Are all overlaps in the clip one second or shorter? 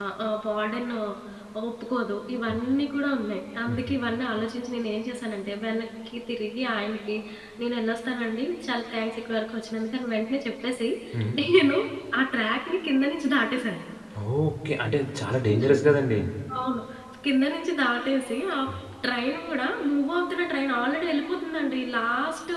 Yes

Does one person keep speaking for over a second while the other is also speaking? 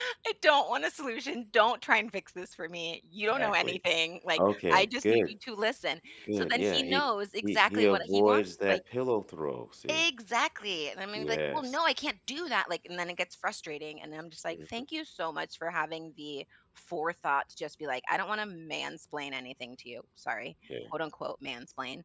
Yes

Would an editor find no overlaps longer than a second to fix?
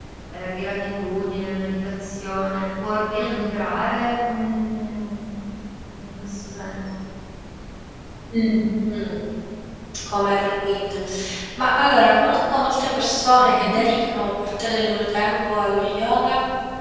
Yes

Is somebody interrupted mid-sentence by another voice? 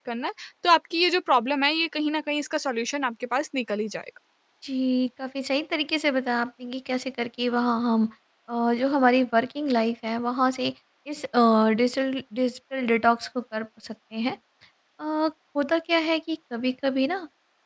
No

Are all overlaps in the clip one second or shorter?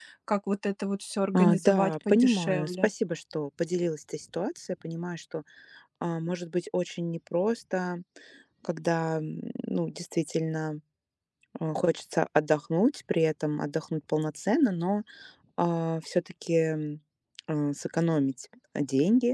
No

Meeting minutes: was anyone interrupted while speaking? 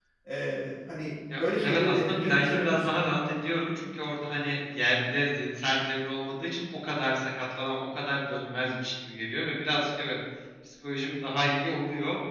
Yes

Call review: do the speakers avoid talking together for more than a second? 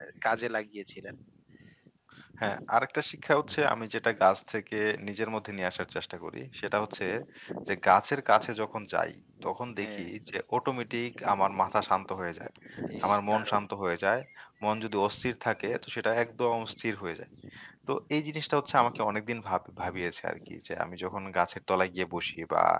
Yes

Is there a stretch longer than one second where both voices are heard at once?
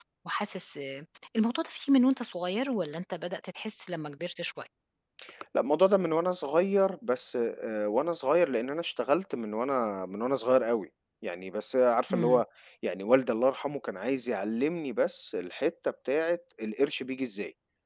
No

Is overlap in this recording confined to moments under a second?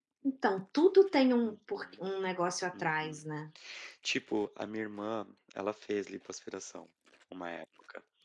Yes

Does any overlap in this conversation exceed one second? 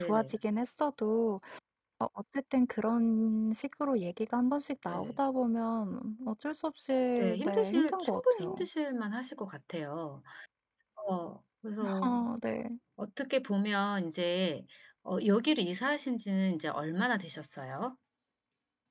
Yes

